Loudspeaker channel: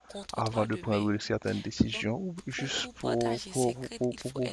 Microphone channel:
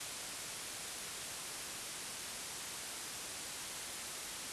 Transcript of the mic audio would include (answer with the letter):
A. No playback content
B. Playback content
A